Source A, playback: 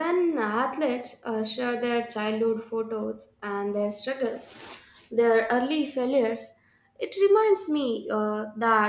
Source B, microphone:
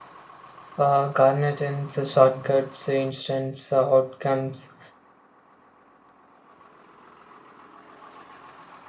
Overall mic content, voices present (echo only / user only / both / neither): user only